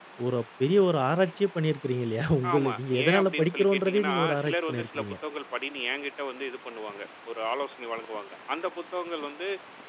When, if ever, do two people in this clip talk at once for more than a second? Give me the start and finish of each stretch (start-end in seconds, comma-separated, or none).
2.5-5.2